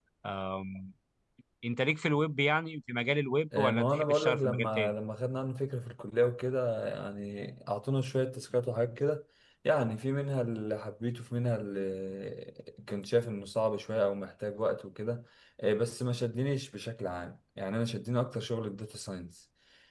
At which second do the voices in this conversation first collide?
3.5 s

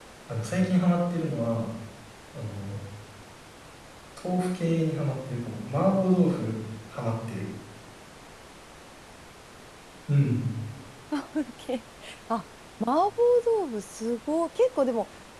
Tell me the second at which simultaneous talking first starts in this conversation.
none

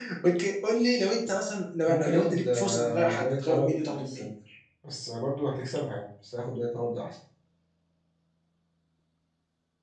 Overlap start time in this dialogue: 1.8 s

